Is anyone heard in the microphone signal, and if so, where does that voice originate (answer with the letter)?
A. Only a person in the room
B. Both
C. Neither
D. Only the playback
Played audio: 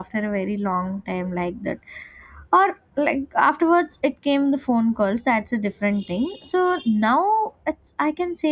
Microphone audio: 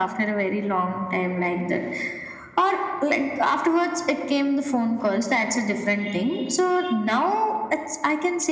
D